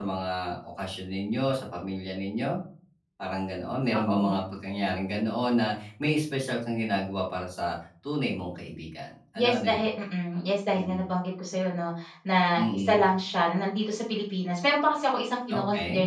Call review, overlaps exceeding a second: none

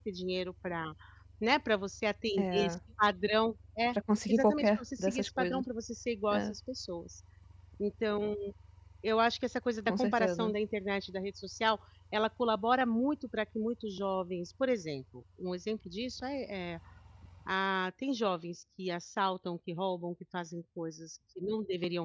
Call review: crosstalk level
present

